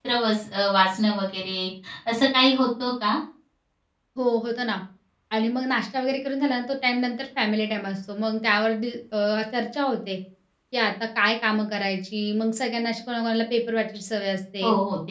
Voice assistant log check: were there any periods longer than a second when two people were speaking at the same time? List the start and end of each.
none

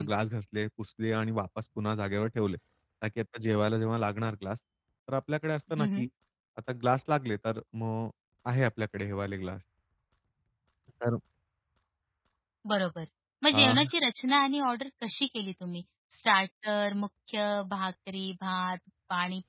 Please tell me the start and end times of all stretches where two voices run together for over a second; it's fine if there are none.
none

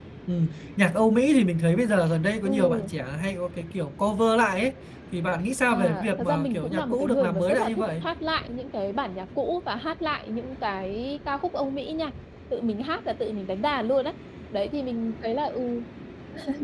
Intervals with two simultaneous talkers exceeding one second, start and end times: 5.7-7.8

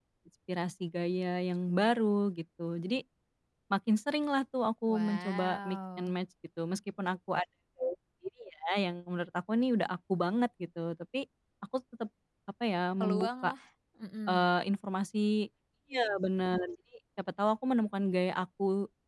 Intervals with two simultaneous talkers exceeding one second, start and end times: 4.9-6.2

